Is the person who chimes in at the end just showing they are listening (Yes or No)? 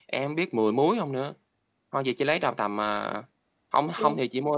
Yes